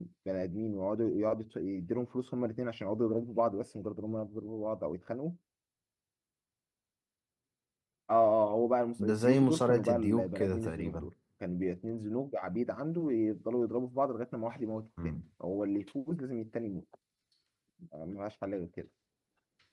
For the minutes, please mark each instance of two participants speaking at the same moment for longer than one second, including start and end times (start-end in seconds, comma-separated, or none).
9.1-11.1